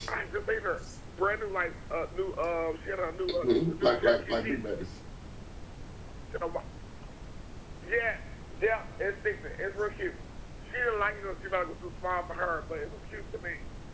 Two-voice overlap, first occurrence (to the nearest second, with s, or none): 3 s